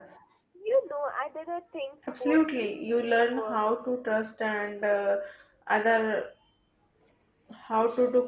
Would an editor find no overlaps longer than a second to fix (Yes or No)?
No